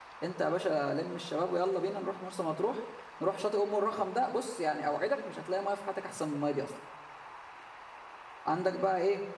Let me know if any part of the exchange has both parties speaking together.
No

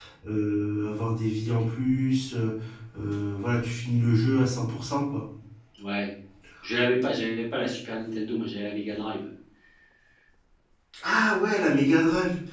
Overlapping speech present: No

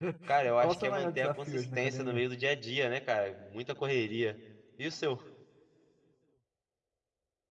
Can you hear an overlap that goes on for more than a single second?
Yes, from 0.6 s

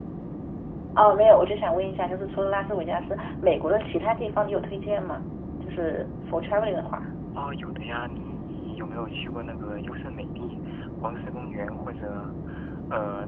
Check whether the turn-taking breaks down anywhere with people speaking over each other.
No

